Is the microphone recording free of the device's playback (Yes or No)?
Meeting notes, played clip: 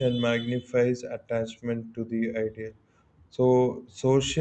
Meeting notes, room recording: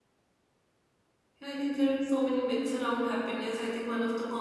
Yes